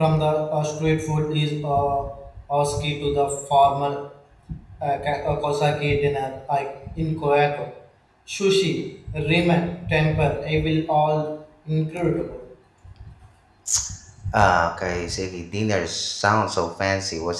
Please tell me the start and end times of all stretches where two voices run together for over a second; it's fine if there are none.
none

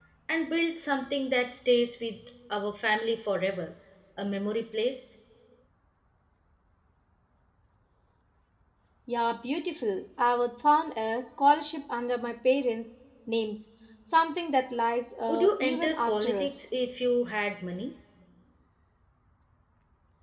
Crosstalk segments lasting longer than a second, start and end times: 15.3-16.7

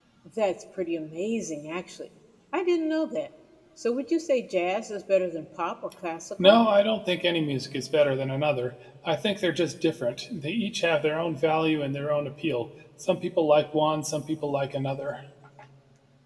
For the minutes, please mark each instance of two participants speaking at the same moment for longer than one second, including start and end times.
none

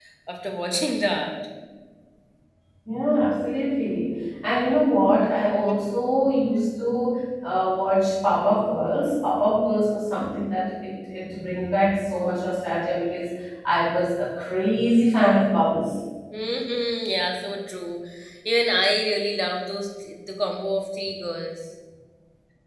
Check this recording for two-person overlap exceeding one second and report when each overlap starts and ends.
none

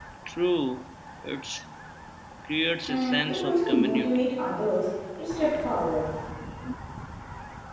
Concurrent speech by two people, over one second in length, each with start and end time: 2.9-4.2

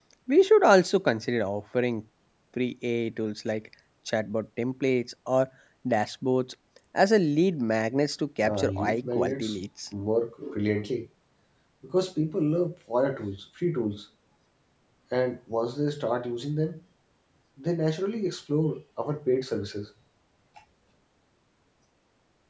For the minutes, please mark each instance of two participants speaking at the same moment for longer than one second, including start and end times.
8.4-9.6

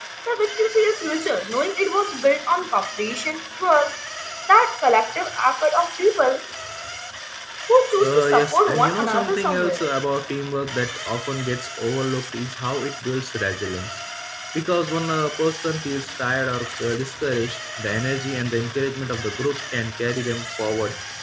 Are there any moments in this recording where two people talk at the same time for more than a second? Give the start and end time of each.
8.0-9.9

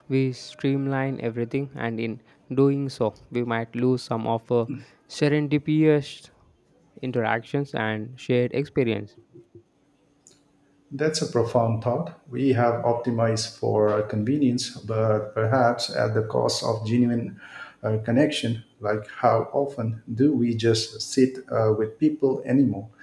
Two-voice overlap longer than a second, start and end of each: none

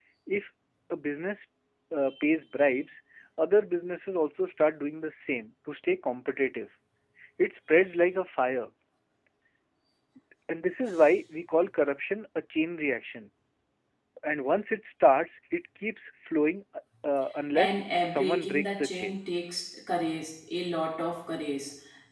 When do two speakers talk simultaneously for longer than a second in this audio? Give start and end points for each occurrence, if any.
17.6-19.2

